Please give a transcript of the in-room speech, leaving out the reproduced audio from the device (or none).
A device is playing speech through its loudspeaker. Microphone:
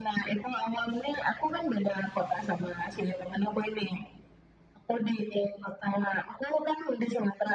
none